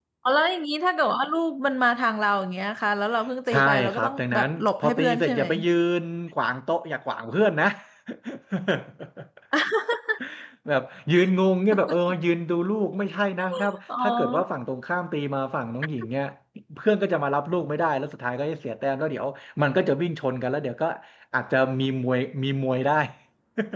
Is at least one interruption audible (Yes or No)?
Yes